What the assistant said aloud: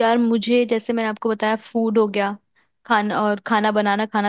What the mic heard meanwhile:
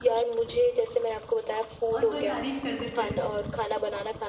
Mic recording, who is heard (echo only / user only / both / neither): both